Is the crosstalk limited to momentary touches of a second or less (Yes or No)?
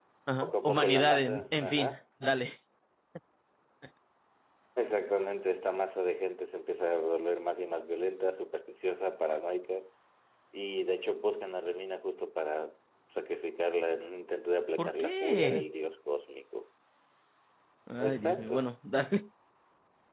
No